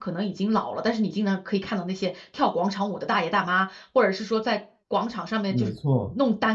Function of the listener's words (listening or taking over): listening